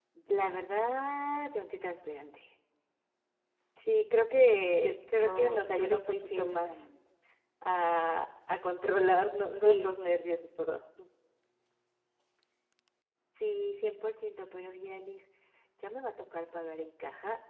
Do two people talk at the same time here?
Yes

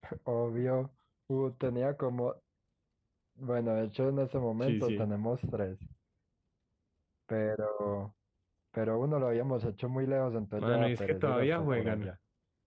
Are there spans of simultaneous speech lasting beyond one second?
Yes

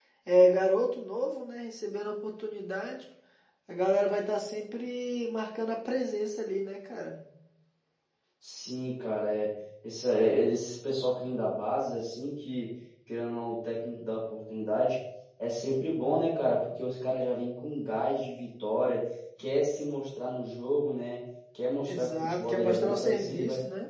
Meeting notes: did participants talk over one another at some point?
Yes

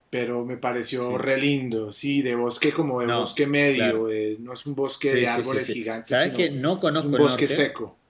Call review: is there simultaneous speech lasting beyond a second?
Yes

